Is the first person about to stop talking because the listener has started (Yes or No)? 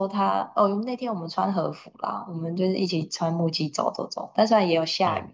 No